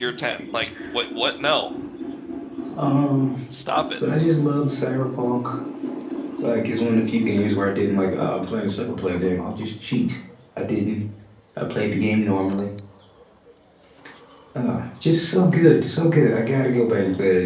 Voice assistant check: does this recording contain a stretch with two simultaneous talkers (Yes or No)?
No